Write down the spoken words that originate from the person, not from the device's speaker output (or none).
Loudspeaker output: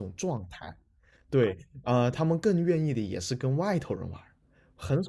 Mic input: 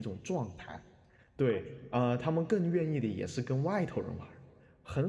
none